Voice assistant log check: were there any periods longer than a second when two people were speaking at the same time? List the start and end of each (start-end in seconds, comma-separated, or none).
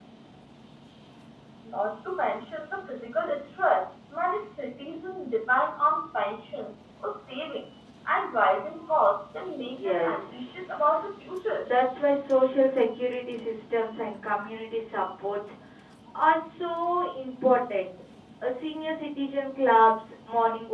9.8-11.0